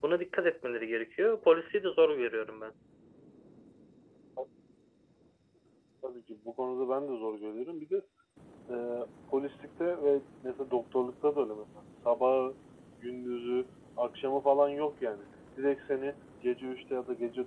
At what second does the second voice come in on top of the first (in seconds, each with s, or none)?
none